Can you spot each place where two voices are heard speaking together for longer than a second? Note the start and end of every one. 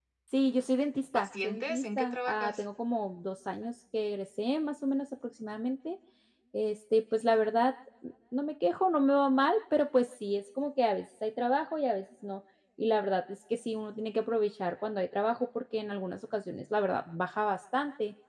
1.1-2.6

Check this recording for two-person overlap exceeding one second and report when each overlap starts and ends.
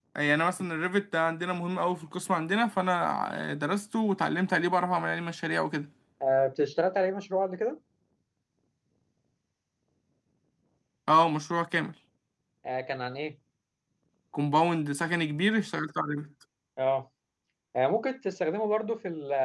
none

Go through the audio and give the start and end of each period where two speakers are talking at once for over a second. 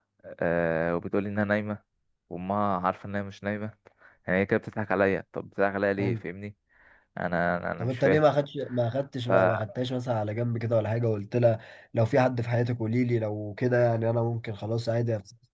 none

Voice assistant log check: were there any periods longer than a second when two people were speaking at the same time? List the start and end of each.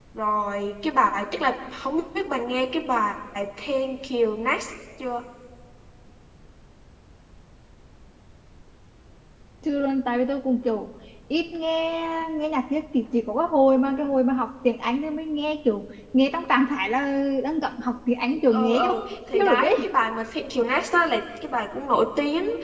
18.5-19.9

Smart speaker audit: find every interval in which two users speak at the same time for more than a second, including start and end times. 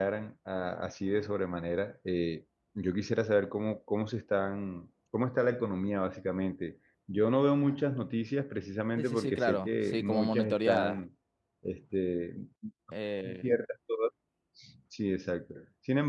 9.0-11.0

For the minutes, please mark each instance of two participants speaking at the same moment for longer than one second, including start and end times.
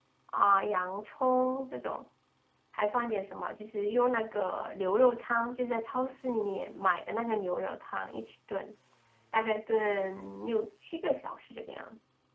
none

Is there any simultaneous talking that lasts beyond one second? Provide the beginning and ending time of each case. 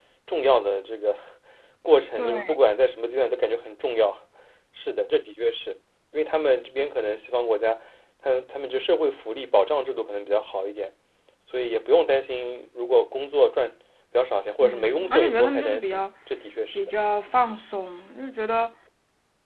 14.6-16.0

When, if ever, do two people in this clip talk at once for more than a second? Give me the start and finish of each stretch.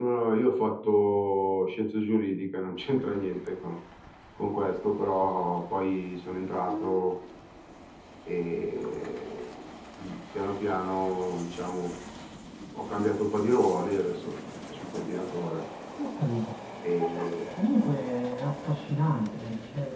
none

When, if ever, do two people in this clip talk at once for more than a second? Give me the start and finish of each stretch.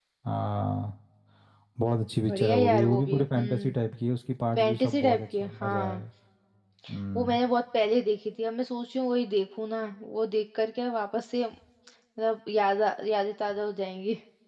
2.2-3.7, 4.6-6.0

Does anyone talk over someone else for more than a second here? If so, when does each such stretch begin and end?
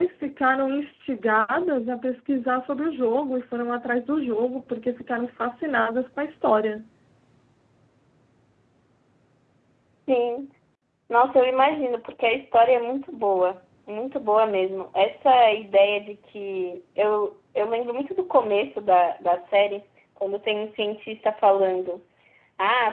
none

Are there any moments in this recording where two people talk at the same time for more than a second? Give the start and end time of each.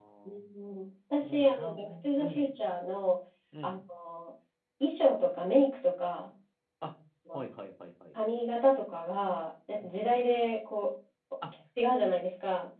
1.2-2.5

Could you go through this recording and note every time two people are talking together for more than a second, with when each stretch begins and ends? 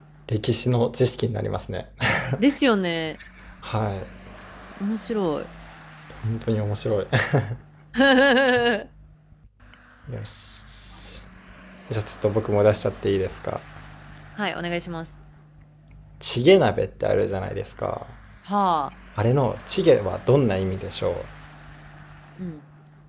none

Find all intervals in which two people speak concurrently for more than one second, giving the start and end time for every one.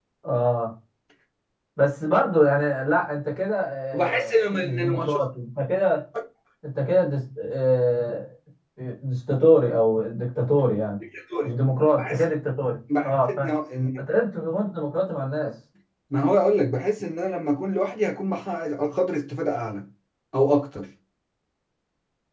3.9-5.3

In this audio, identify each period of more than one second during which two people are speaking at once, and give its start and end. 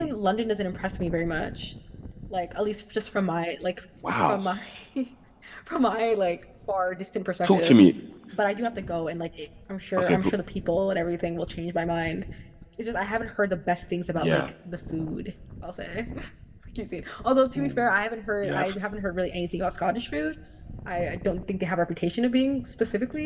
none

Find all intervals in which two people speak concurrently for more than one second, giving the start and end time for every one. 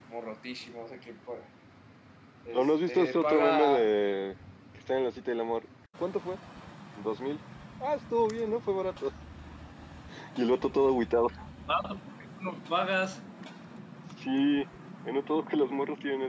2.5-3.9

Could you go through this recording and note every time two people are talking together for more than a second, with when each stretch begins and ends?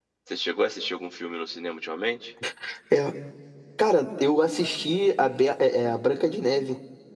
none

